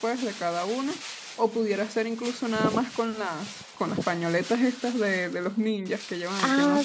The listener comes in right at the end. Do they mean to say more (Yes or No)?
Yes